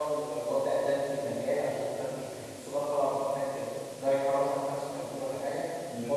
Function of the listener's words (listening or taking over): taking over